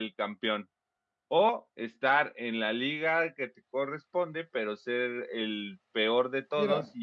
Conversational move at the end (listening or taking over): listening